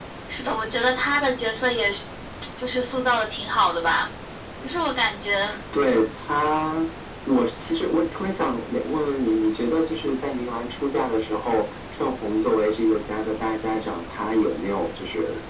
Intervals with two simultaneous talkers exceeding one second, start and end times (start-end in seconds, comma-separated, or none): none